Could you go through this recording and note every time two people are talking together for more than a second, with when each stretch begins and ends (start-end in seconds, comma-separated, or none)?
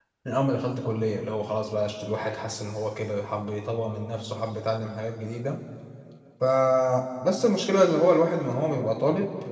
none